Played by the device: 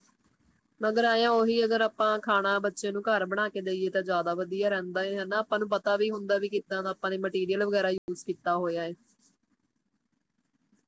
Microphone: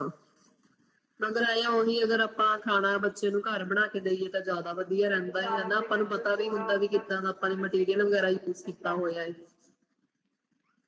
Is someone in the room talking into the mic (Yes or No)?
Yes